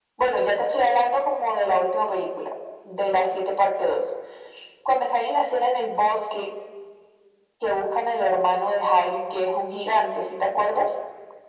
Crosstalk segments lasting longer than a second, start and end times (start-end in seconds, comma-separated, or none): none